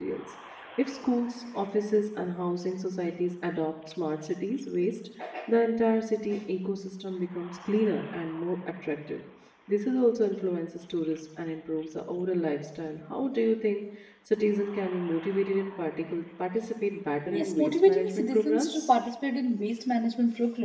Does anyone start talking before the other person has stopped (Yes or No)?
Yes